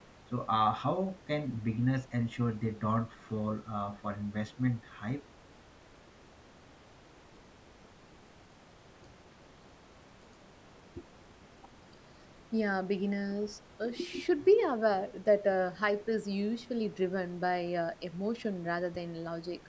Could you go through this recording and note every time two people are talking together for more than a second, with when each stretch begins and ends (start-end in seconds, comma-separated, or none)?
none